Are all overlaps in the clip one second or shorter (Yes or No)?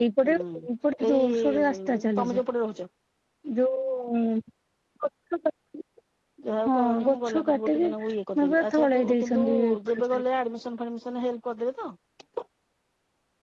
No